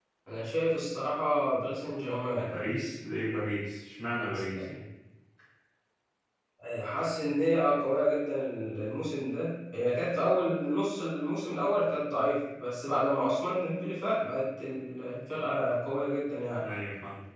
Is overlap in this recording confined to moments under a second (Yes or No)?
Yes